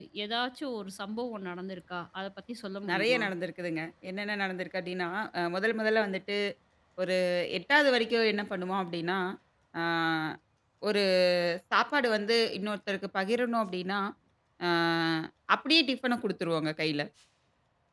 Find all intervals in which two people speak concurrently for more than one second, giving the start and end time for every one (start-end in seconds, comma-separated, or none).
none